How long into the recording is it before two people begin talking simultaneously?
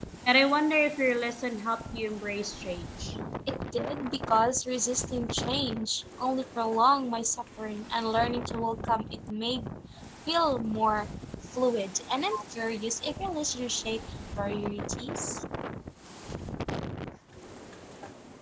none

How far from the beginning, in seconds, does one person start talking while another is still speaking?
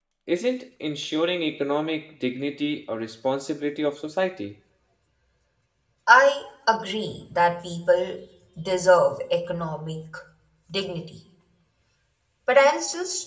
none

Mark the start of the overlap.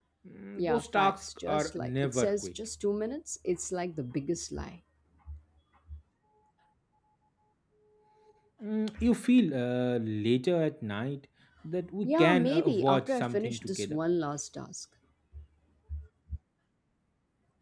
0.6 s

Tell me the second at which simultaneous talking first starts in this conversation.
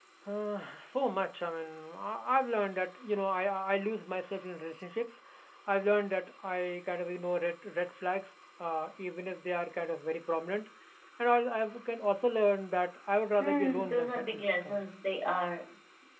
13.4 s

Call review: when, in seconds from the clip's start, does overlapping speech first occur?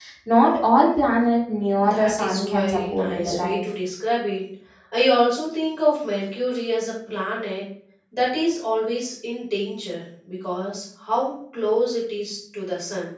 1.8 s

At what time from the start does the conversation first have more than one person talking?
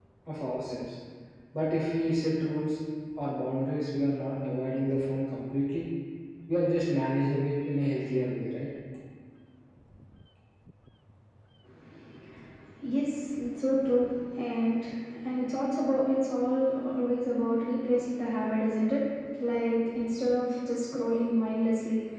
none

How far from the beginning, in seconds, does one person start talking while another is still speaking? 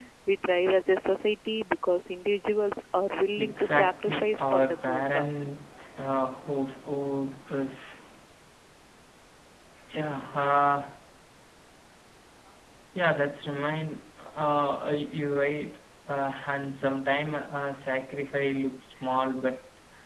3.4 s

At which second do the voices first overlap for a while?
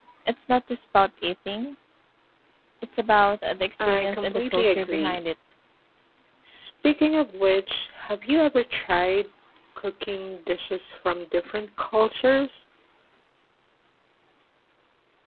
3.8 s

